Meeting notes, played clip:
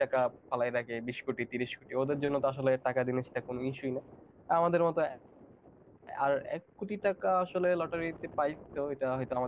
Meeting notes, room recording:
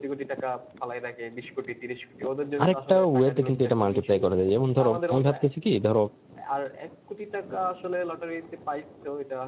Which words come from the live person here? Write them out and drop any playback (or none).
আরেকটা ওয়েতে কিন্তু এটা মাল্টিপ্লাই করা যায় যেমন ধরো আমি ভাবতেছি কি ধরো